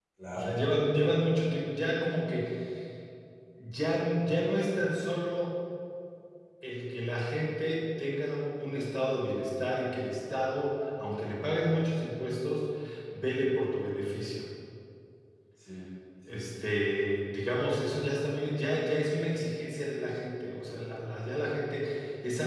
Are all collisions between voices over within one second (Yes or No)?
Yes